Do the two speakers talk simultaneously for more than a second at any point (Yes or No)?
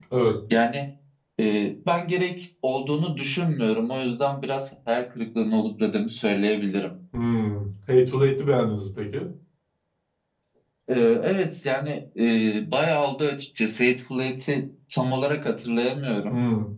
No